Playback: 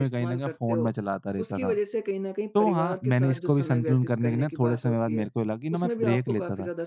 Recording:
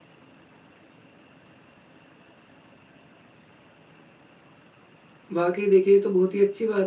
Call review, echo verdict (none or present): none